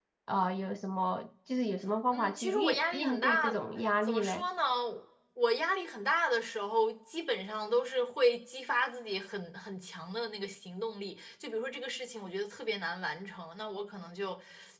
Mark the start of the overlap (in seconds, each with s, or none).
2.1 s